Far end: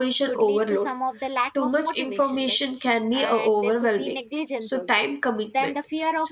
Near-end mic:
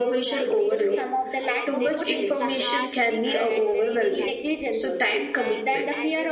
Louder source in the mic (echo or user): echo